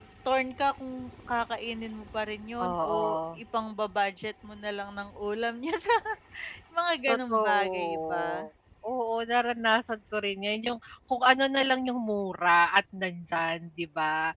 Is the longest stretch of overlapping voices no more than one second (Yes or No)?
No